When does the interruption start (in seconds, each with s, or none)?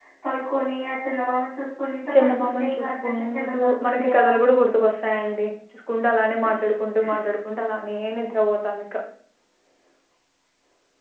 2.0 s